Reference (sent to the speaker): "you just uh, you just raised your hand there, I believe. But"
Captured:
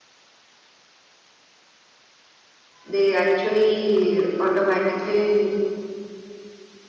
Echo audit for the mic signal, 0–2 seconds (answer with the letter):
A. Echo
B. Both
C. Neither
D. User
C